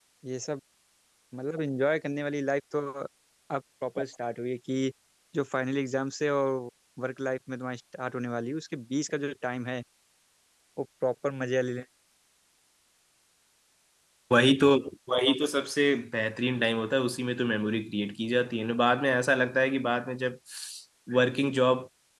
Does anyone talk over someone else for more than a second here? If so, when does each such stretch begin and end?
none

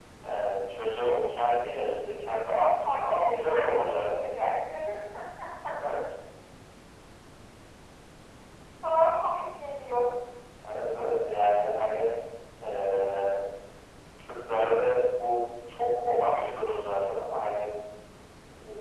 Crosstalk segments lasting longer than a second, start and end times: 2.8-4.1

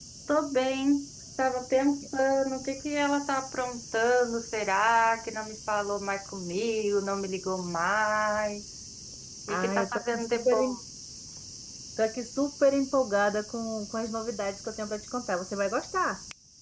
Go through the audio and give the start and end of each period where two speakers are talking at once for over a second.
9.5-10.8

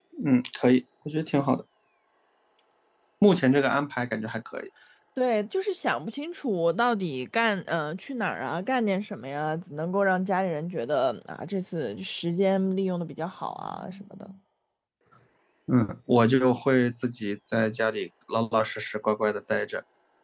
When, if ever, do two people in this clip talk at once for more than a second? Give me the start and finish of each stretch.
none

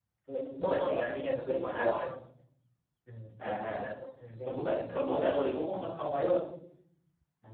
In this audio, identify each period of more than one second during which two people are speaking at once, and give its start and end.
0.6-2.0, 4.5-5.8

